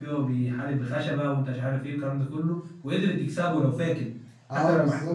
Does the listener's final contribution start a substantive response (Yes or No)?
Yes